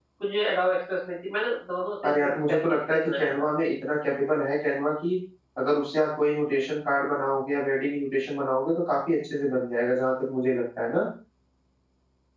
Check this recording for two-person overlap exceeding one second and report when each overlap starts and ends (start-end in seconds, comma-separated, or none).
2.0-3.5